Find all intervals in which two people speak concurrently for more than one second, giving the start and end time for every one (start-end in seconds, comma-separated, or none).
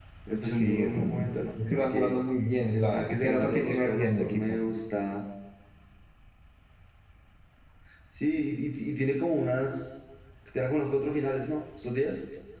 0.5-2.2, 2.7-4.6